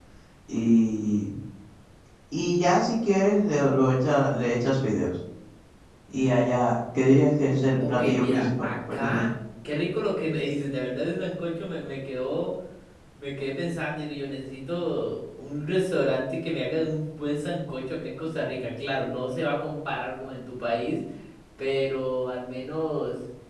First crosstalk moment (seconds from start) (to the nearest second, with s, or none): 8 s